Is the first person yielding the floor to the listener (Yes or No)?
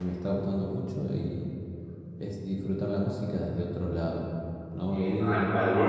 Yes